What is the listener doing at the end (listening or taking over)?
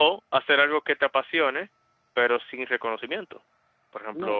taking over